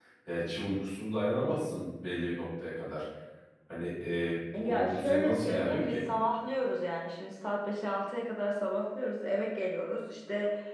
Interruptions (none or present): present